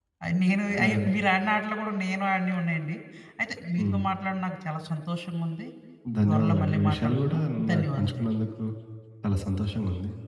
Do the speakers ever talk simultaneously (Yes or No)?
Yes